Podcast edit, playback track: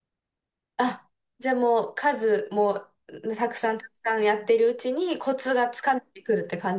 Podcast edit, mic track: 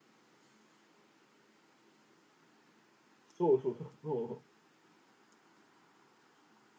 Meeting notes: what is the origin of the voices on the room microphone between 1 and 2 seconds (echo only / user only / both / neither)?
neither